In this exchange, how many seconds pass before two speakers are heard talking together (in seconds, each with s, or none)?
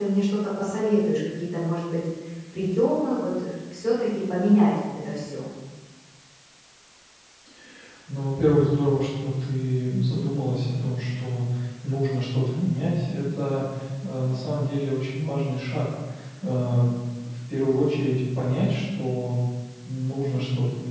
none